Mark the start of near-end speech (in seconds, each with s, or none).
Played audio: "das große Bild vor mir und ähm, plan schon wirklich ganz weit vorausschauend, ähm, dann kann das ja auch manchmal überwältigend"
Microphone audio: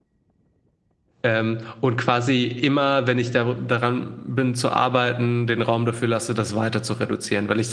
1.2 s